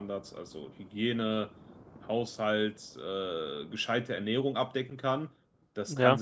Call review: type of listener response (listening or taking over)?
listening